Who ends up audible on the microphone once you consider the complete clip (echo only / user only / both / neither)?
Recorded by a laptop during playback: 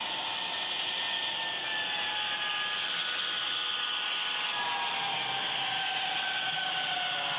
neither